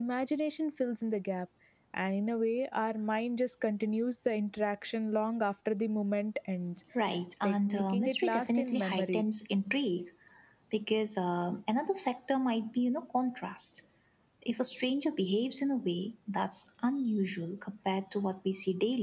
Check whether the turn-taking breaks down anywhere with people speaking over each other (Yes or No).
Yes